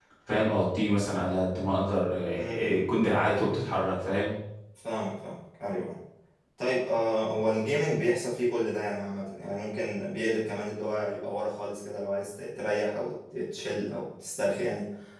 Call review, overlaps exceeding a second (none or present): none